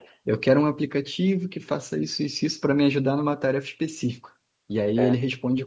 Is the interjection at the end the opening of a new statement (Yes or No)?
No